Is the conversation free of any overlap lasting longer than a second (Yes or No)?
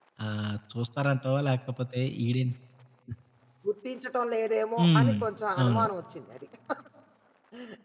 Yes